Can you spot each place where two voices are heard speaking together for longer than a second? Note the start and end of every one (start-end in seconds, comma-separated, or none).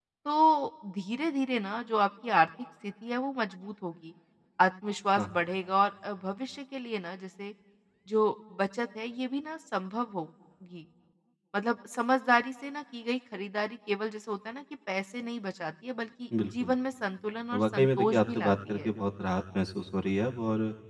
17.6-18.9